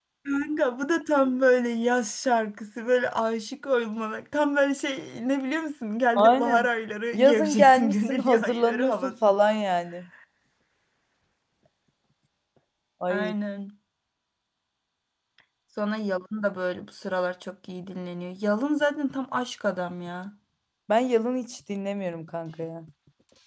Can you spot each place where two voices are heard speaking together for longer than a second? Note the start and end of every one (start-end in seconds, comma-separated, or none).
7.1-9.1